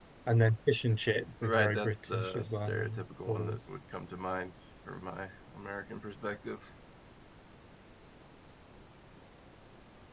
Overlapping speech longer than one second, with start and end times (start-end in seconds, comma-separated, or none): 1.4-3.6